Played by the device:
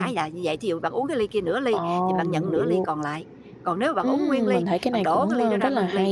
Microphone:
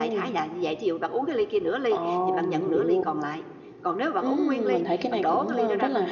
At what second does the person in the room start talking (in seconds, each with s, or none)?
none